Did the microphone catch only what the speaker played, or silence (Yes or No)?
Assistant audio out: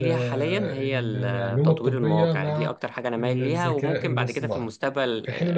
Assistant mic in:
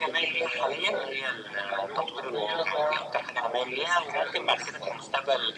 Yes